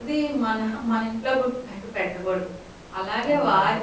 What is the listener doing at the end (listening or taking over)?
listening